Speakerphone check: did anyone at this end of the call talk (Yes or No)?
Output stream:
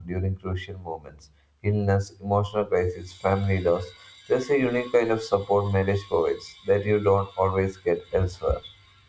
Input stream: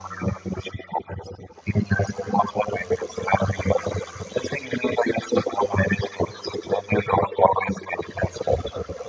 No